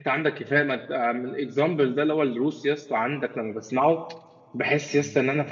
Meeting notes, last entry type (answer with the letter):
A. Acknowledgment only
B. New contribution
A